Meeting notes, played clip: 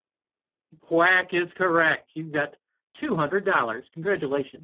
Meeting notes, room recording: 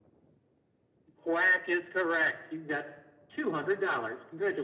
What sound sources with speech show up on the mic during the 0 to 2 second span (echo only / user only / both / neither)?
echo only